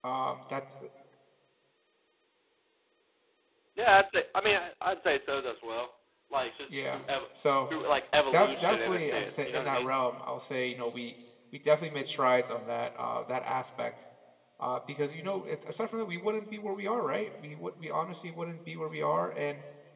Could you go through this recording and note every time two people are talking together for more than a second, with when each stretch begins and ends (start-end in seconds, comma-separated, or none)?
8.3-9.9